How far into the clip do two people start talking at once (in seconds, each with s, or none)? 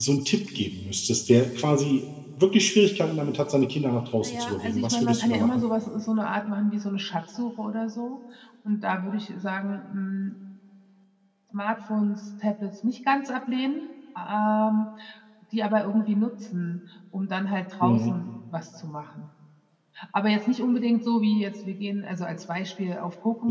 4.2 s